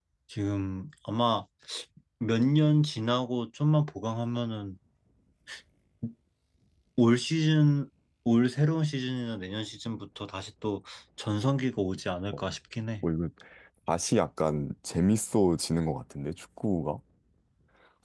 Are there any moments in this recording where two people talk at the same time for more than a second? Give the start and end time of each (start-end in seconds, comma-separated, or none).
none